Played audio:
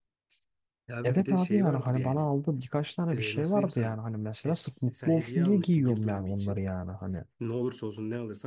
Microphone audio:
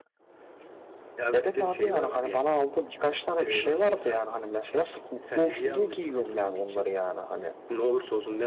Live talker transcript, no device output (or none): none